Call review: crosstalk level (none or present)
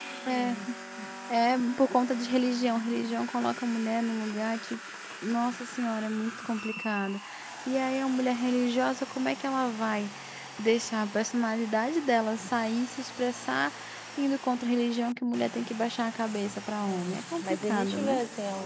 present